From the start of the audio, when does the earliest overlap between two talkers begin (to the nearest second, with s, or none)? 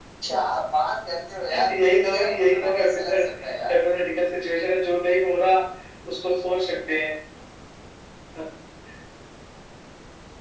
1 s